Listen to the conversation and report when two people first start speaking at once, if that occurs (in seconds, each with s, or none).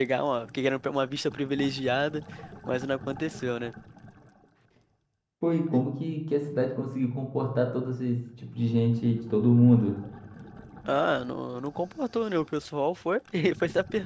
none